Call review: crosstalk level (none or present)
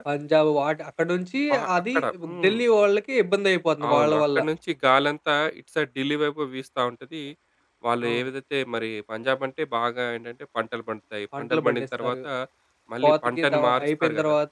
present